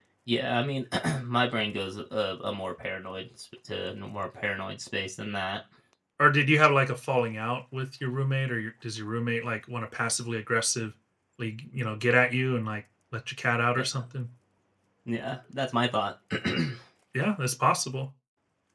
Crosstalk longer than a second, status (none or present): none